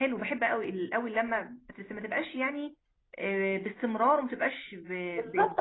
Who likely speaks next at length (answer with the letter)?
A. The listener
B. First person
A